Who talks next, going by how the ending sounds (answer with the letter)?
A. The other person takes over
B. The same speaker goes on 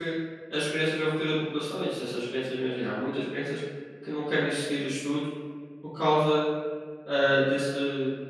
B